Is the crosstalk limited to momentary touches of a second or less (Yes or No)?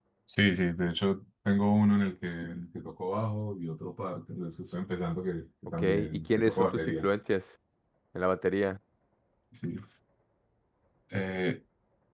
No